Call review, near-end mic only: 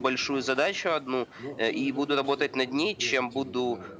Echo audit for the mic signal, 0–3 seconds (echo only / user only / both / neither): both